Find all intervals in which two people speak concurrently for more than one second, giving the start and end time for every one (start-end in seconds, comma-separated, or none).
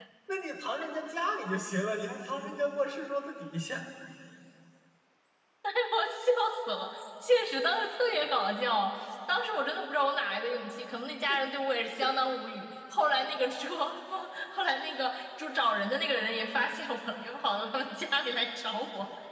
none